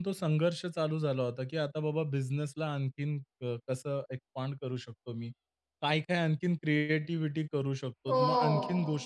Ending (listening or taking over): listening